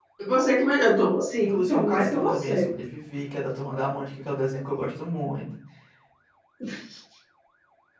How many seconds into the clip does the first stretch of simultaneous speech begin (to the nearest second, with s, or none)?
1 s